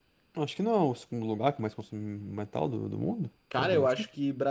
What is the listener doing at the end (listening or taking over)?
taking over